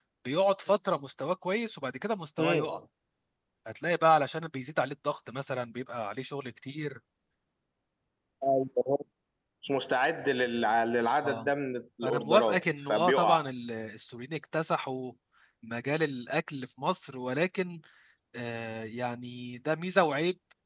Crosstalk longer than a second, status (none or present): present